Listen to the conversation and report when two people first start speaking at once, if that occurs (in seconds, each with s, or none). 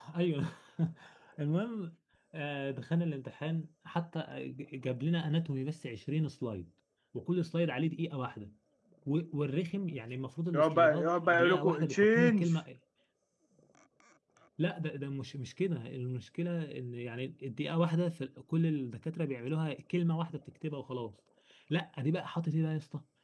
10.5 s